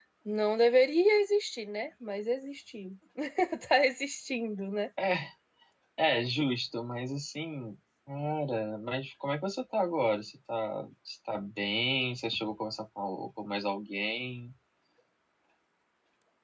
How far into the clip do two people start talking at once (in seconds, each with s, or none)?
none